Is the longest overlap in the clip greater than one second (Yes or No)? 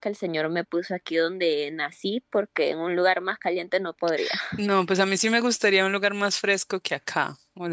No